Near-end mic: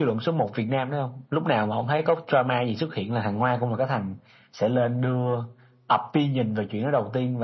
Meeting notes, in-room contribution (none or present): none